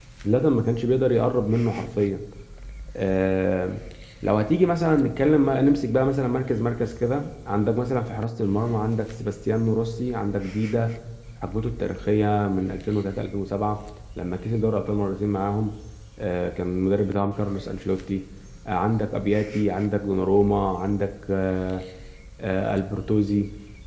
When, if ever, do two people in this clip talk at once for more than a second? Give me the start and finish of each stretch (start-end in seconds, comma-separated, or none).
none